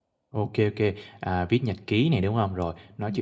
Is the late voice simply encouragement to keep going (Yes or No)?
Yes